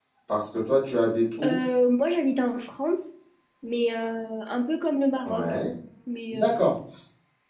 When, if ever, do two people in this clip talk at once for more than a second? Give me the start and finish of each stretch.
none

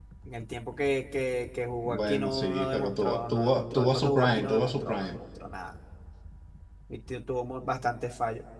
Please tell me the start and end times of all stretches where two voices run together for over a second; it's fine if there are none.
1.8-5.2

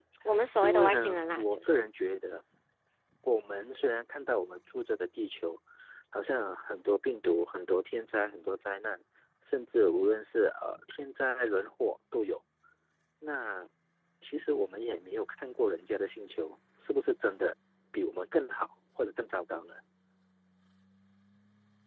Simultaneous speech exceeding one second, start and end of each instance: 0.6-1.8

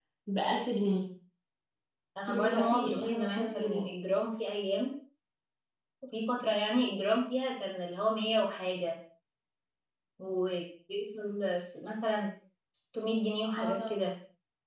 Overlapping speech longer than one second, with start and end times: 2.4-3.9

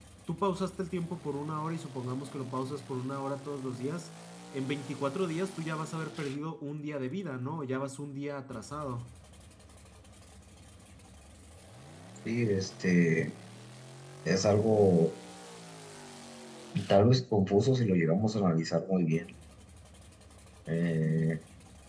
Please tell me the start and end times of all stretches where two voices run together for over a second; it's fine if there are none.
none

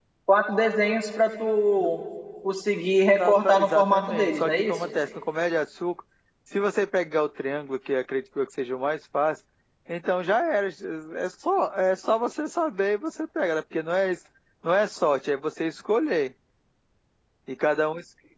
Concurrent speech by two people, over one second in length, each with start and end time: 3.2-4.7

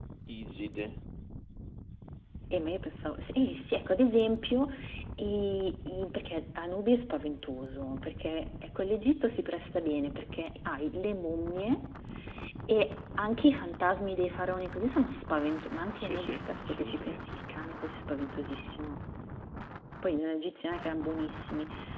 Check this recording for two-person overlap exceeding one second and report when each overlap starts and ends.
15.9-17.3

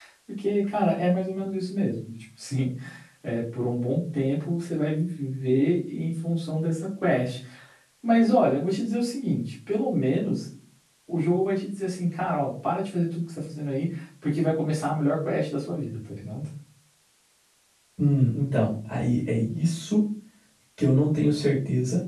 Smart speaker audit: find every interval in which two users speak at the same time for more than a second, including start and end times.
none

